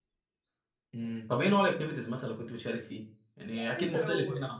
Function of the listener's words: taking over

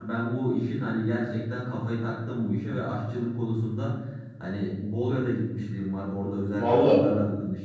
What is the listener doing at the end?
listening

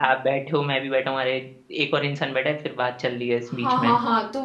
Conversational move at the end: taking over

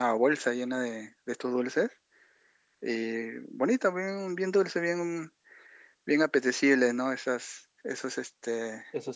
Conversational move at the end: taking over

